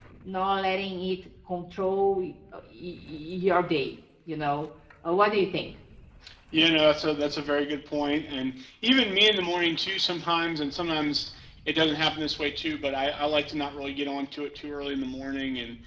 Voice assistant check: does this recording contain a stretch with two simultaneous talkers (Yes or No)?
No